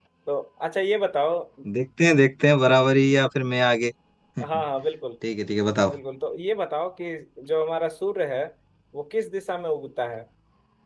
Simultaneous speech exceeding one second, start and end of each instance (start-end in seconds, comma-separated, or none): none